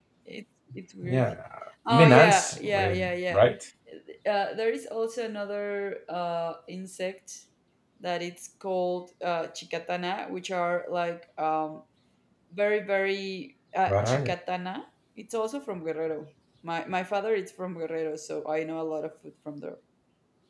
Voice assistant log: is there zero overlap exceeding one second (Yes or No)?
No